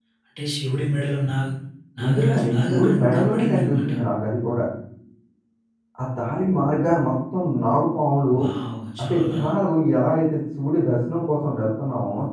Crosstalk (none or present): present